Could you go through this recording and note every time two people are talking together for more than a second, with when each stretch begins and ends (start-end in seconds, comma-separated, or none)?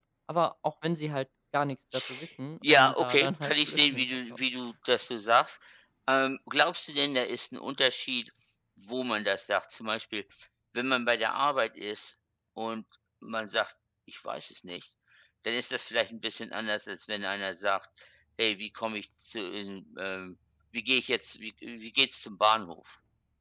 2.6-4.4